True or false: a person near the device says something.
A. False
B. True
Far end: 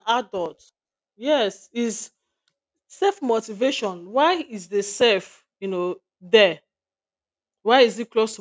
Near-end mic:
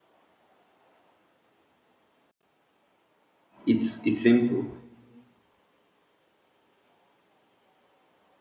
B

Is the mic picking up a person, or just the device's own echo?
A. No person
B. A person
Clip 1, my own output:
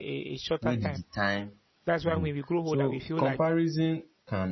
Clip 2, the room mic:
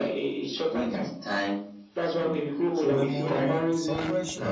B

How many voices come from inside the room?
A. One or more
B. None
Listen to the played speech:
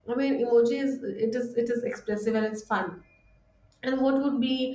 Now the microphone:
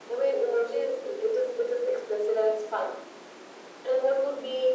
B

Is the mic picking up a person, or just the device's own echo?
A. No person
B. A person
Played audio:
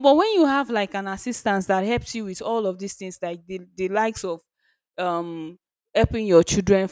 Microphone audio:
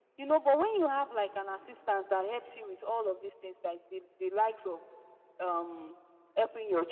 A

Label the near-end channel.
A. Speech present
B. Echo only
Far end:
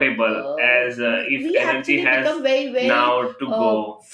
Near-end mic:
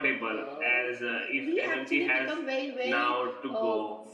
B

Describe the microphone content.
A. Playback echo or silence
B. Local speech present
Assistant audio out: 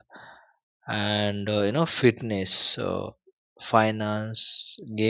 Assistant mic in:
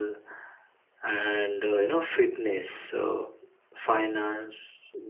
A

